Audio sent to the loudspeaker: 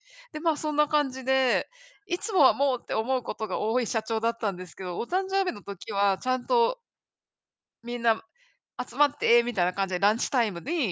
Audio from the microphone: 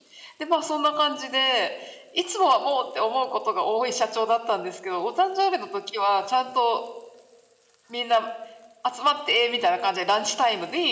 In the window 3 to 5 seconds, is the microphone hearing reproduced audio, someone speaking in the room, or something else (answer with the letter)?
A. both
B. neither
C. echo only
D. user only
C